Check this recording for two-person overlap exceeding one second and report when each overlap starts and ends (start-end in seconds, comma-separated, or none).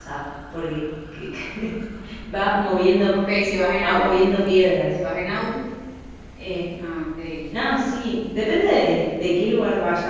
none